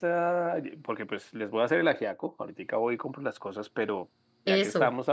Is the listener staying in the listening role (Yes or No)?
Yes